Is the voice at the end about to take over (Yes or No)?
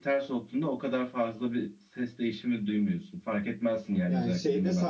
Yes